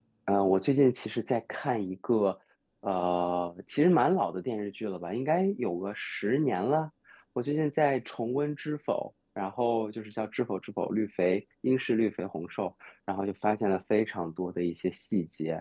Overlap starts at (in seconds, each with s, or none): none